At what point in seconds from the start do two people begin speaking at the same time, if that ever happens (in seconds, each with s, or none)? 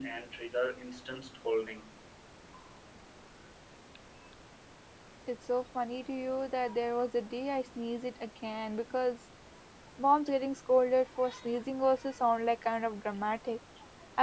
none